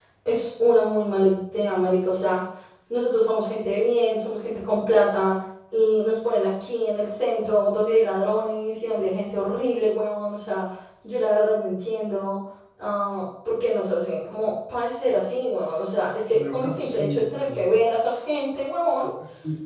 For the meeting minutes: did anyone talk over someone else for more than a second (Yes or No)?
Yes